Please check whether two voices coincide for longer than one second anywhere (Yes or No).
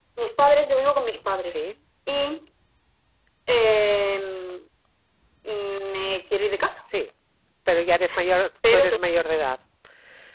No